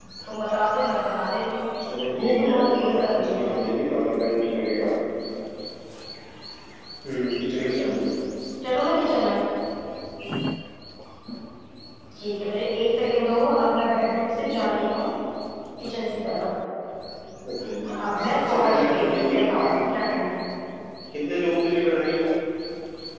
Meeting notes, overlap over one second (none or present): present